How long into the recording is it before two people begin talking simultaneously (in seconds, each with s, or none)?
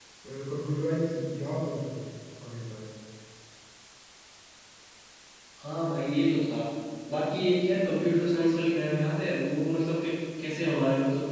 none